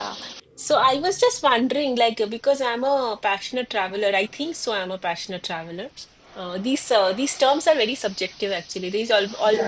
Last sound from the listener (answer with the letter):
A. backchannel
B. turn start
A